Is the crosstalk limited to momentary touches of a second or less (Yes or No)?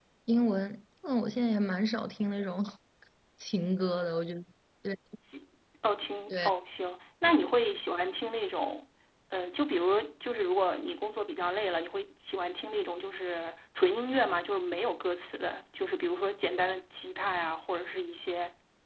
Yes